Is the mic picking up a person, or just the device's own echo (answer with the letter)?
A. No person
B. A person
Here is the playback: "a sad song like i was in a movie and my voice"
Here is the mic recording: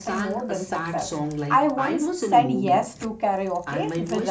B